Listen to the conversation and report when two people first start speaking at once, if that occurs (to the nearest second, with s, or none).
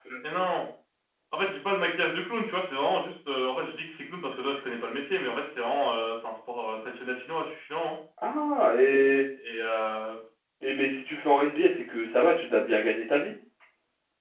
none